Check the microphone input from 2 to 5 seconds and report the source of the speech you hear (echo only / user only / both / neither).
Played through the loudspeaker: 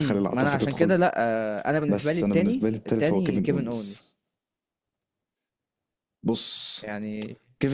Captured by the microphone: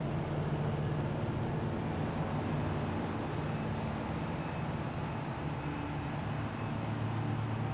neither